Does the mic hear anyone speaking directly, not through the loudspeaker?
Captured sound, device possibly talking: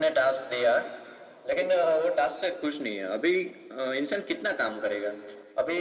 No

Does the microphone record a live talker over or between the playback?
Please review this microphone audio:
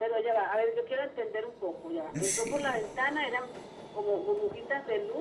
Yes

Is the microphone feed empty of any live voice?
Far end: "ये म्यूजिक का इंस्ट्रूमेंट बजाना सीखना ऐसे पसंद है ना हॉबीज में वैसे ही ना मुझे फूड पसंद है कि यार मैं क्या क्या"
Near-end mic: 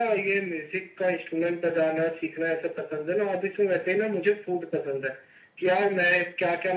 Yes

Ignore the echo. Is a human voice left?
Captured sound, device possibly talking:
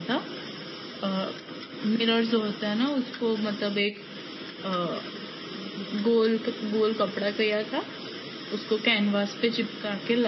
No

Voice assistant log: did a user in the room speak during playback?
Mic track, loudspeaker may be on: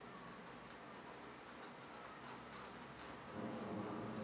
No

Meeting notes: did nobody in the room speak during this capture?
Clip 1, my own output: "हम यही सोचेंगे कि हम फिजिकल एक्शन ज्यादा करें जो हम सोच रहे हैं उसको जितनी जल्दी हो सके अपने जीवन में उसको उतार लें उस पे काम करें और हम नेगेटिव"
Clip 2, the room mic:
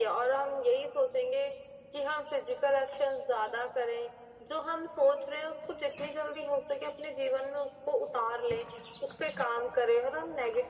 Yes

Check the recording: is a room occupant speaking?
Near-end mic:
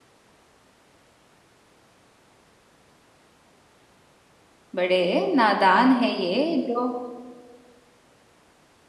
Yes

